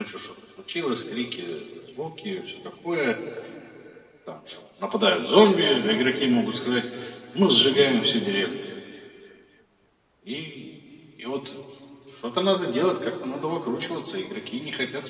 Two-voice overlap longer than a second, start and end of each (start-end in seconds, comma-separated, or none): none